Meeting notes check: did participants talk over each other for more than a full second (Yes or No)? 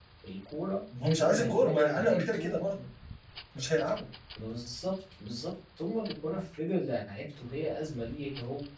Yes